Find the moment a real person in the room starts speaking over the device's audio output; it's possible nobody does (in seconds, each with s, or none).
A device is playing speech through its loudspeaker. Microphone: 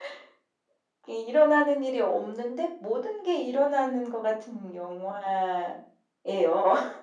none